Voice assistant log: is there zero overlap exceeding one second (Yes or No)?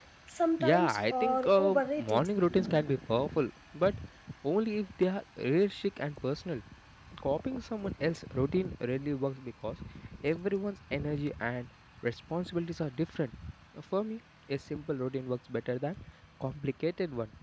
No